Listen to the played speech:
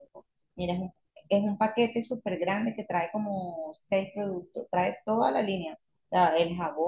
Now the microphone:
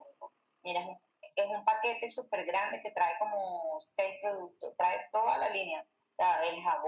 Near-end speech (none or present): none